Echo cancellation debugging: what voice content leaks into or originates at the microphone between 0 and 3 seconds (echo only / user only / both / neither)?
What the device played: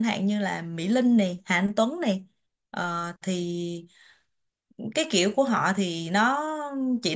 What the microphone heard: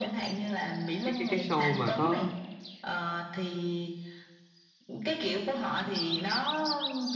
both